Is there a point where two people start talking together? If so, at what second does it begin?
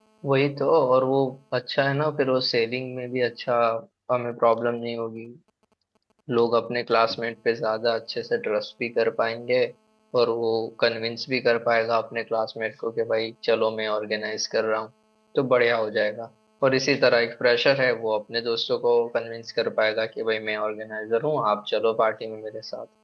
none

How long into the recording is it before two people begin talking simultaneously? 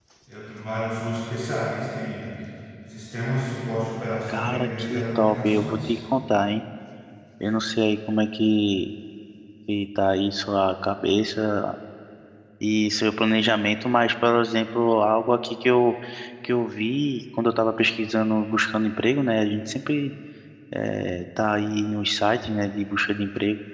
4.3 s

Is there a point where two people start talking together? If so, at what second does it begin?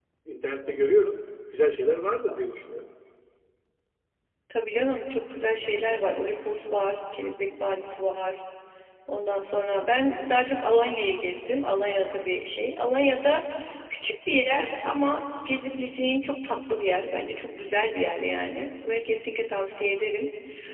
none

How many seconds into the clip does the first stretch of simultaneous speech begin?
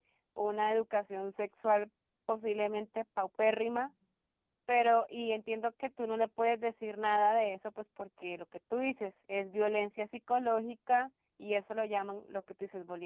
none

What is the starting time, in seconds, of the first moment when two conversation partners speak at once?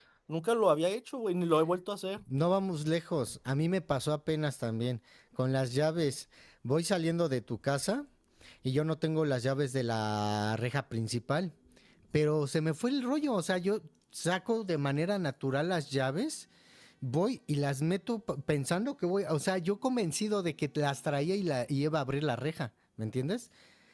none

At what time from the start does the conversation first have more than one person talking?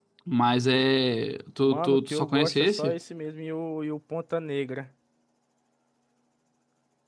1.6 s

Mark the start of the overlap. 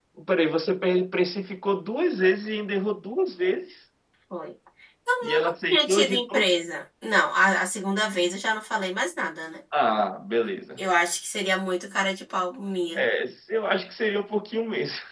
5.2 s

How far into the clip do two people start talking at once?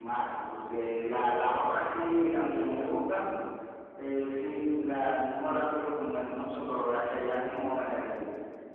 none

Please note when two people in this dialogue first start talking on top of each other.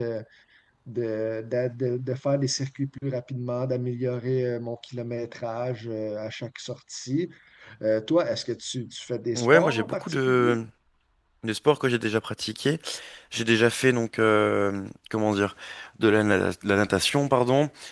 9.3 s

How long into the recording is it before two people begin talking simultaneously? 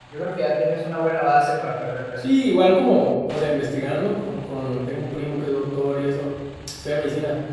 none

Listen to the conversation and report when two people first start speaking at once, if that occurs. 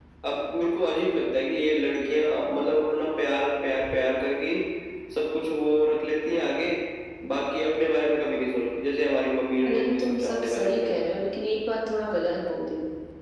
9.7 s

